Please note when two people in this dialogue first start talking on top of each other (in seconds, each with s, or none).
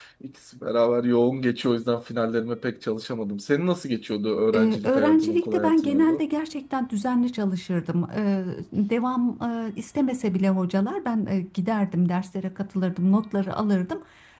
4.5 s